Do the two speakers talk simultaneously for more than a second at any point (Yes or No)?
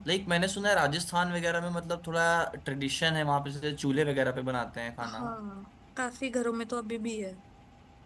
No